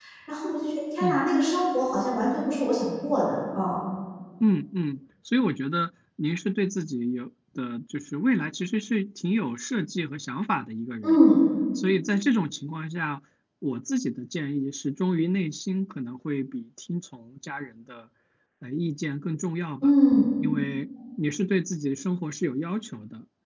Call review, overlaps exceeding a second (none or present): none